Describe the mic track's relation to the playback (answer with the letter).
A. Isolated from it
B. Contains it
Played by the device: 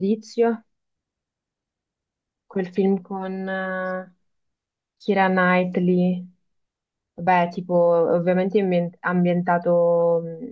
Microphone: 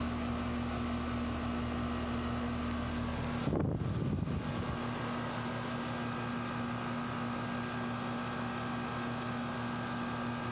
A